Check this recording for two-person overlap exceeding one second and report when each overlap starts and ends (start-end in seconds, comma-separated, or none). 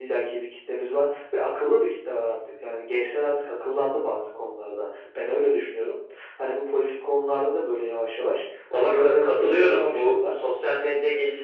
8.7-10.3